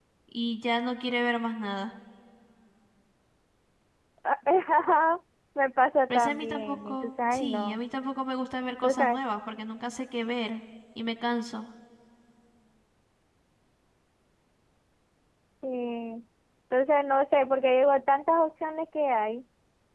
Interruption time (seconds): 6.1 s

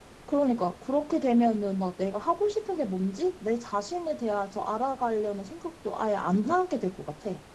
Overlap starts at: none

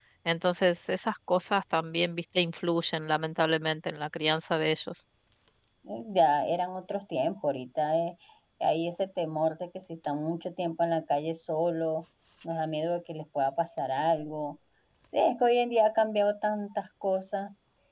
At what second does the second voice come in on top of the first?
none

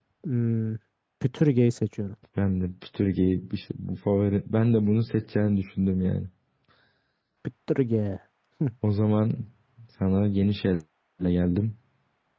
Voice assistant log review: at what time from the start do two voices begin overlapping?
none

